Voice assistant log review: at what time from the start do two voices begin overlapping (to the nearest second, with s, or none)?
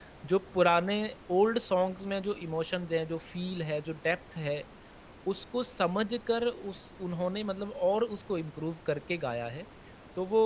none